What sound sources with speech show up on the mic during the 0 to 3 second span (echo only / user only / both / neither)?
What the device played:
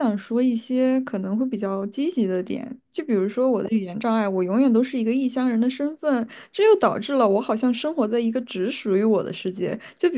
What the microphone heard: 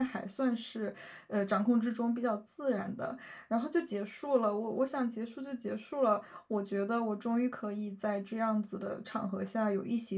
user only